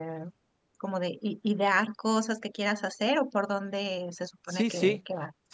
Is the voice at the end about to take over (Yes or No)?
Yes